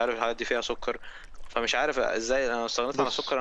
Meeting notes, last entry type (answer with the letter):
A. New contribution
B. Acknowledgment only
B